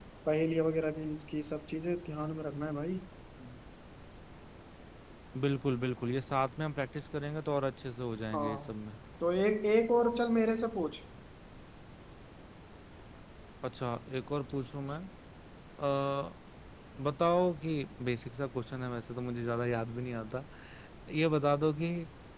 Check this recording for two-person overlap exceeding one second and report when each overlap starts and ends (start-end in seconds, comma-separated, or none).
none